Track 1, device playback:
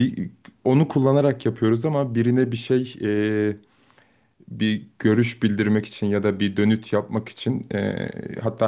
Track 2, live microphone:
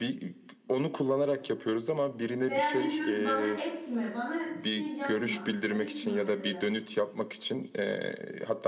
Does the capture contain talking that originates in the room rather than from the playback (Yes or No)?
Yes